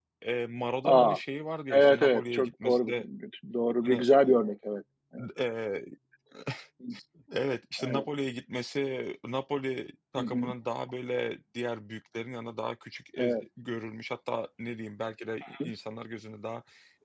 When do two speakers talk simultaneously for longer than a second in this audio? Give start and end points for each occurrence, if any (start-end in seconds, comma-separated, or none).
1.7-3.0